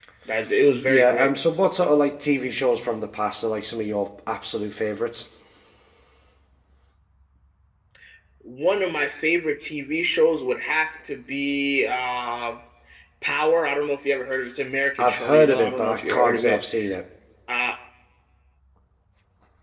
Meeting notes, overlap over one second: present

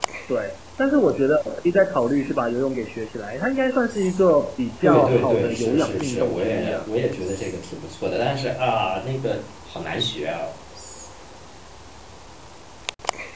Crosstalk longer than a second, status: present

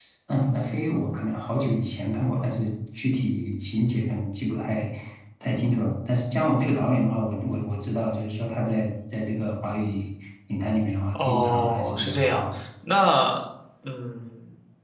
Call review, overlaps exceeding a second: present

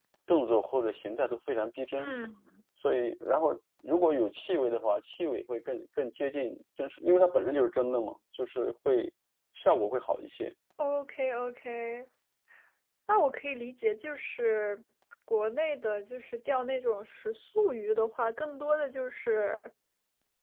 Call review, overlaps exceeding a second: none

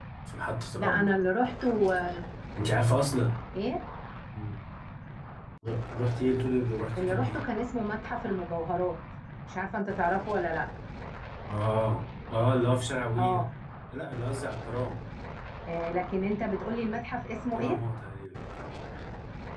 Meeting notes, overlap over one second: none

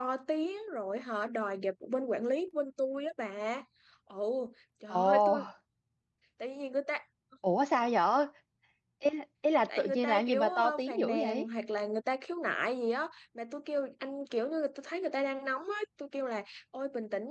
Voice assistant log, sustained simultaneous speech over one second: present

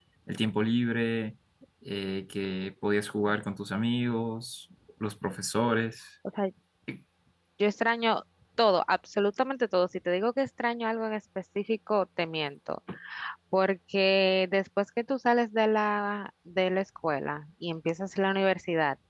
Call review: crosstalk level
none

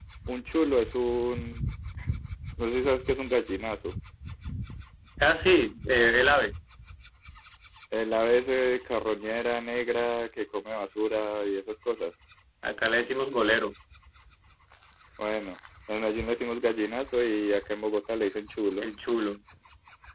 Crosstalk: none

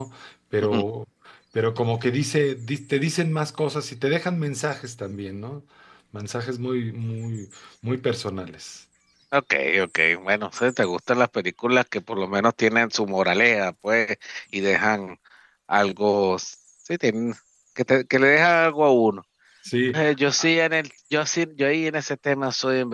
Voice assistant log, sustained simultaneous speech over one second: none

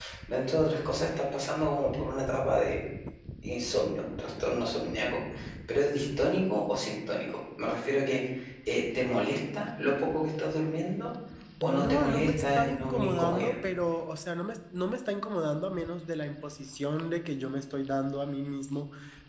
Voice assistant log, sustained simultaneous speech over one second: present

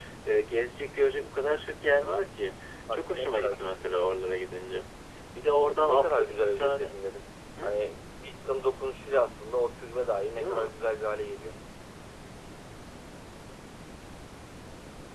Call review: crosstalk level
present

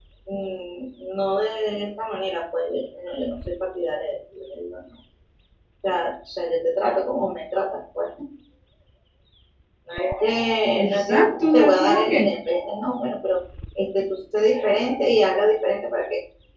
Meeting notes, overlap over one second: present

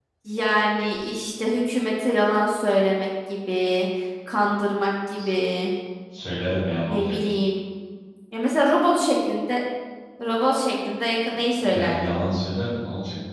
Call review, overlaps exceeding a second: none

